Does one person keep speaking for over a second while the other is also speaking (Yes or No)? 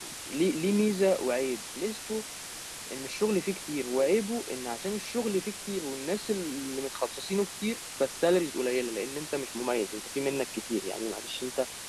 No